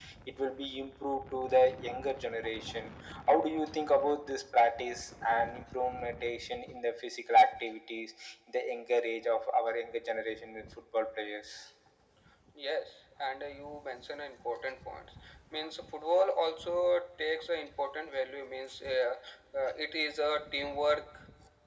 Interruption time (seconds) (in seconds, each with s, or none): none